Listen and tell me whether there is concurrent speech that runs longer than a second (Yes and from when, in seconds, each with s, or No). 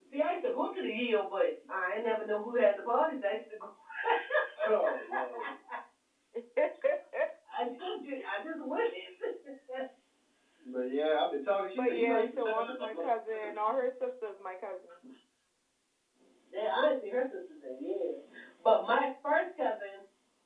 Yes, from 11.8 s